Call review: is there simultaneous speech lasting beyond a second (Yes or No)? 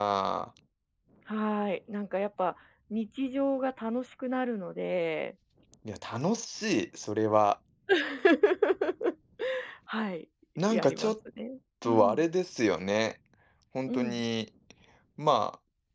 No